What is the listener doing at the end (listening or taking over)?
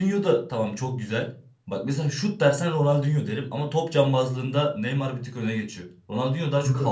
listening